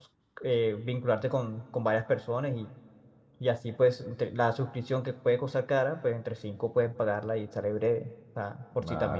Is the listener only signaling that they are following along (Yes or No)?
No